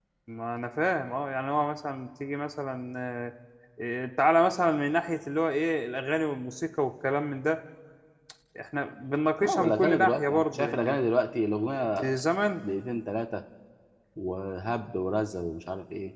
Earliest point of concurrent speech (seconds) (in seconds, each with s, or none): 9.4 s